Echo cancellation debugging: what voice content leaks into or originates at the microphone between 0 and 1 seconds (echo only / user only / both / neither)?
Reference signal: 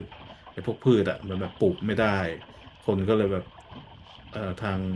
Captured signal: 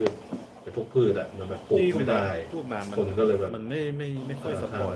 echo only